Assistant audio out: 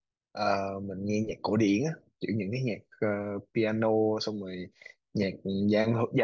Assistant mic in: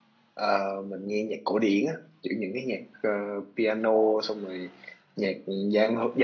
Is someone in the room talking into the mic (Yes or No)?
No